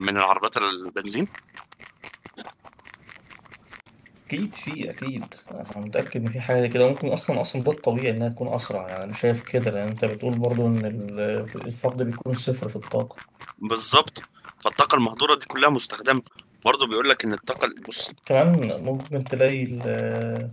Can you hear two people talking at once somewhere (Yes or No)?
No